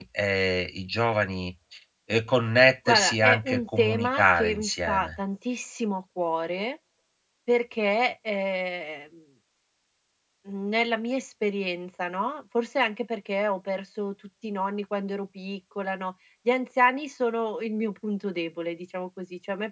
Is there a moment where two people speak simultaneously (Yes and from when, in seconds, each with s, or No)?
Yes, from 2.9 s